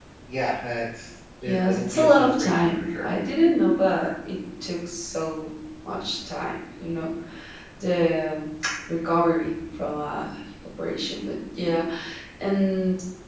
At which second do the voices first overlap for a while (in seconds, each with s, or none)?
1.4 s